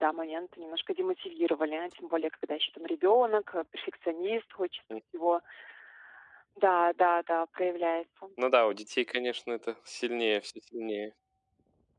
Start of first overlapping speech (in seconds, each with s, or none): none